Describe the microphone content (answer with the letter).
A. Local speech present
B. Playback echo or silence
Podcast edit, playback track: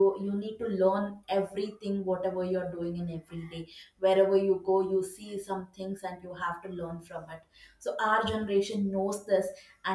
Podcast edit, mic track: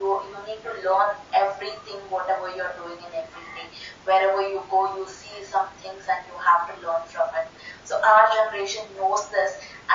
B